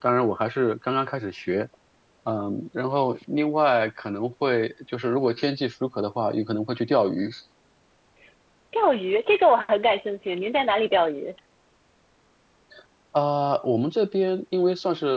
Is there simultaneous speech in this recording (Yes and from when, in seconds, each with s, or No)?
No